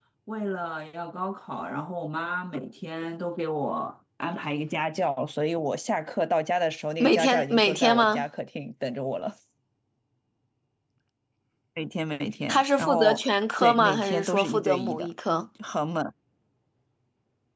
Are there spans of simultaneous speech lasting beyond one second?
Yes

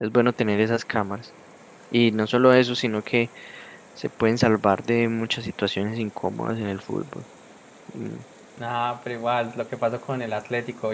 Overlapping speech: No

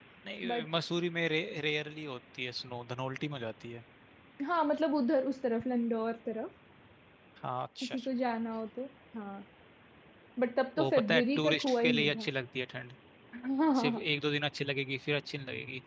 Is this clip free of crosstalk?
No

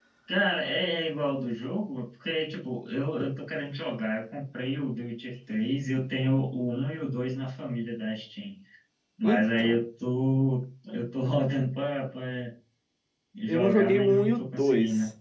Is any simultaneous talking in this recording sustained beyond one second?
Yes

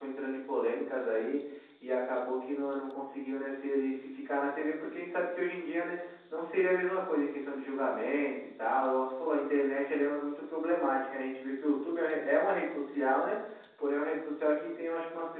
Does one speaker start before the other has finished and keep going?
No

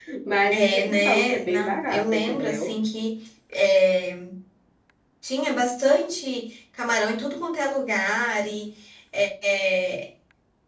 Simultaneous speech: Yes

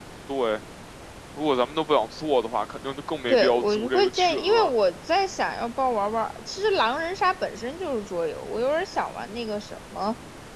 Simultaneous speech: Yes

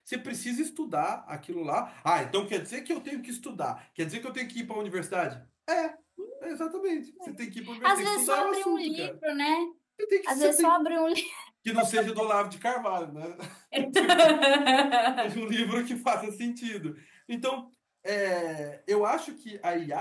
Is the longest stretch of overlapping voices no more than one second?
No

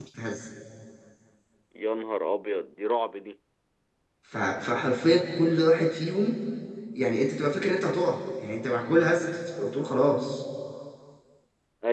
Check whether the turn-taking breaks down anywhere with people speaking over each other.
No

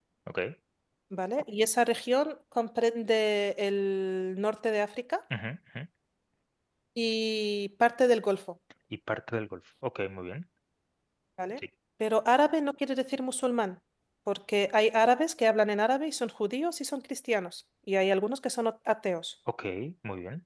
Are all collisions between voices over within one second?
Yes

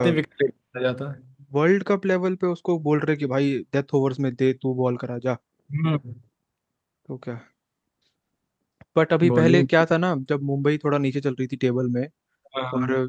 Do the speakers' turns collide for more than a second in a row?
No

